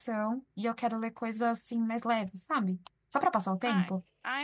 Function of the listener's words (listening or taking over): taking over